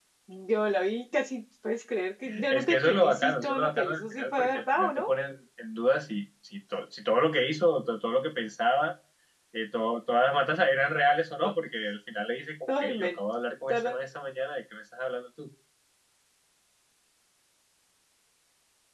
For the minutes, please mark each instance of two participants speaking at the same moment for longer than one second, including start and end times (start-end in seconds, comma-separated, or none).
2.5-5.1